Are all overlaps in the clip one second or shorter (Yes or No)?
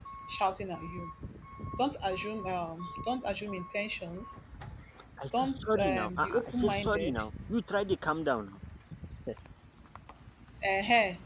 No